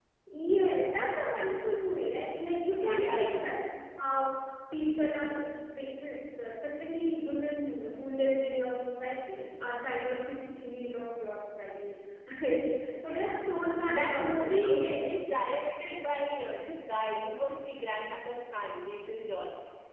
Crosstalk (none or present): present